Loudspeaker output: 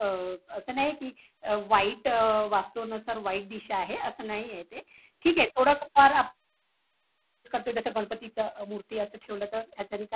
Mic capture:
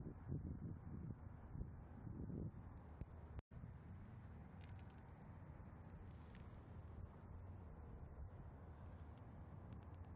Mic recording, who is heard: neither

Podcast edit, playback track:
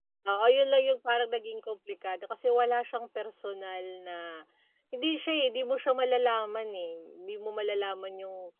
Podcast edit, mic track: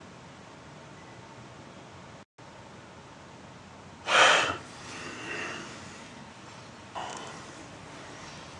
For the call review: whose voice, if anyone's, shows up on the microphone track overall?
neither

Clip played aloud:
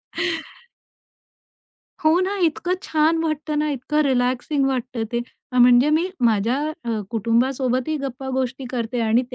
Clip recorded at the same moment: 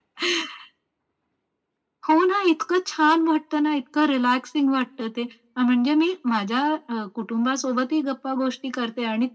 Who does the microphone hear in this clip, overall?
echo only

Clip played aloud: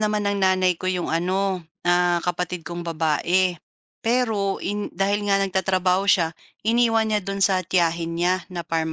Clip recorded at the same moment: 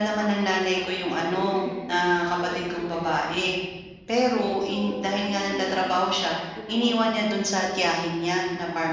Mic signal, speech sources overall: both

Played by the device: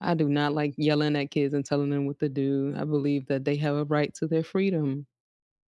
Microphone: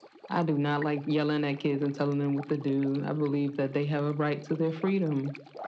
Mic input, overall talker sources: echo only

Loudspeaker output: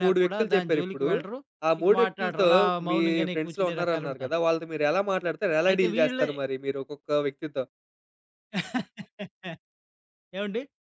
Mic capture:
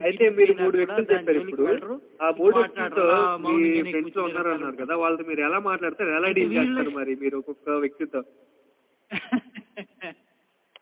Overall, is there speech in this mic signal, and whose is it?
echo only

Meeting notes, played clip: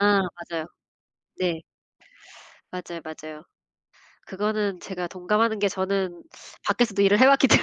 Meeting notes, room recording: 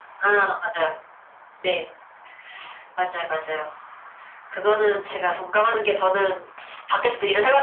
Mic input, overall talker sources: echo only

